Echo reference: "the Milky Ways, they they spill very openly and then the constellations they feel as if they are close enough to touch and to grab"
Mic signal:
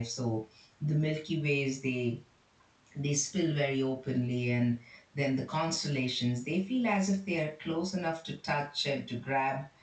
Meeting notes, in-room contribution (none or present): none